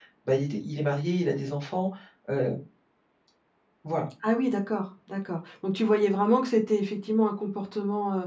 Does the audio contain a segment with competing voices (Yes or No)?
No